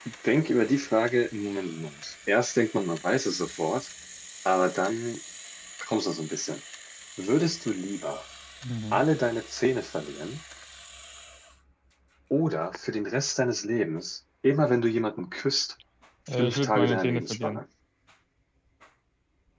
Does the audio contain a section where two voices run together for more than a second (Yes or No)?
Yes